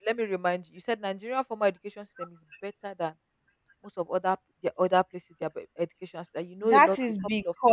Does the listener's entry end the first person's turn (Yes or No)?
Yes